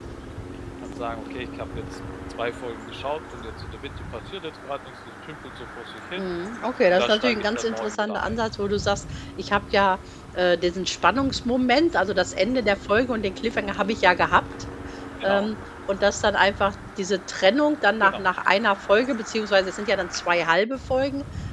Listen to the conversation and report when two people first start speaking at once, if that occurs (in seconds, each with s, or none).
6.9 s